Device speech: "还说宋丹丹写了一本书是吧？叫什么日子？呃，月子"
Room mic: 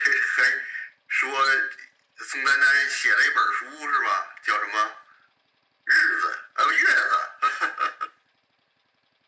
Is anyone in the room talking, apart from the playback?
No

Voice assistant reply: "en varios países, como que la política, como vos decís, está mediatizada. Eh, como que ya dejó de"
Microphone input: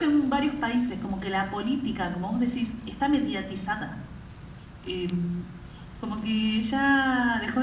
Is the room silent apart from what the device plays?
Yes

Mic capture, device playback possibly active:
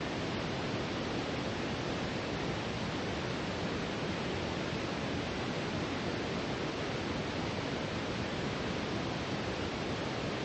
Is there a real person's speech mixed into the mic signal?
No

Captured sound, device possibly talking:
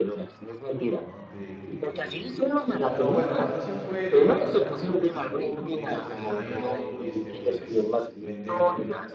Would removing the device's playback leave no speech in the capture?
No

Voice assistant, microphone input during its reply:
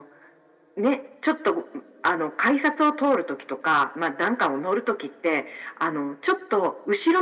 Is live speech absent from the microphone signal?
Yes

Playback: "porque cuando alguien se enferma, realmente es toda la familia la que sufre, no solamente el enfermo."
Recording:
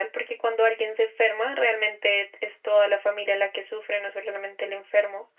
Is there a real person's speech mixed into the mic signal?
No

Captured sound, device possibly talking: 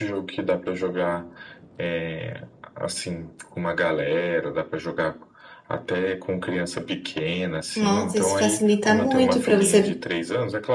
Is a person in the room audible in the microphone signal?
Yes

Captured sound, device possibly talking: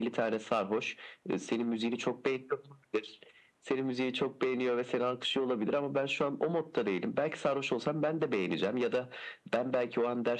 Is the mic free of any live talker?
Yes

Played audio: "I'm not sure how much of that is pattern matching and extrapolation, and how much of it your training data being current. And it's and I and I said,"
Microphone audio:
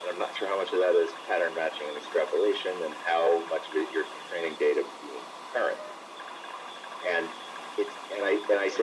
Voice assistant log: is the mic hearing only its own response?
Yes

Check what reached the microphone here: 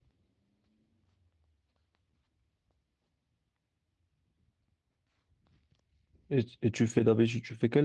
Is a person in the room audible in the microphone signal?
Yes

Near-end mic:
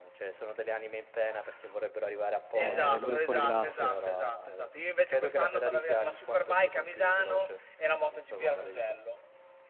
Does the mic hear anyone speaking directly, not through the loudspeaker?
Yes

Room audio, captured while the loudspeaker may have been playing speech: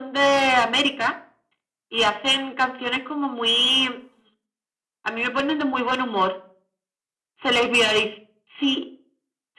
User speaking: No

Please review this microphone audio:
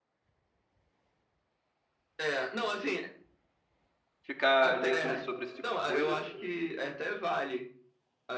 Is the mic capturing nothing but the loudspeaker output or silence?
No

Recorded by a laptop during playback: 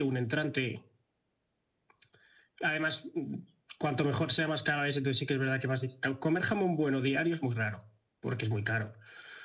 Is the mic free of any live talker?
Yes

